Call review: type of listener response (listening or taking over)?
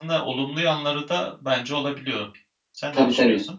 taking over